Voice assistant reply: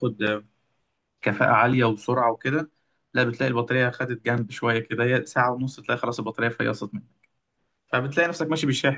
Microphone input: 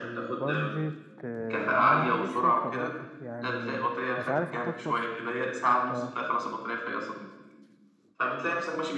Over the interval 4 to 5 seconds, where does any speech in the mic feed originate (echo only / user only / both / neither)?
both